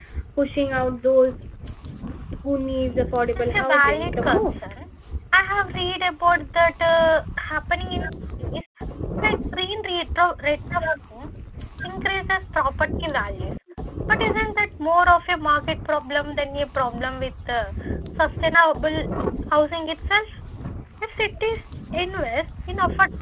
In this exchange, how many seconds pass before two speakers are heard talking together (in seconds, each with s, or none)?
3.4 s